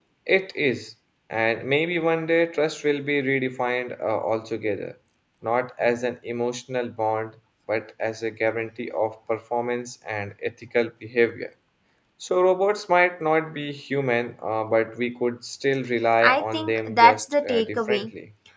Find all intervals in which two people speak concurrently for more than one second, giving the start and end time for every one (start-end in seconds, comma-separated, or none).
16.2-18.1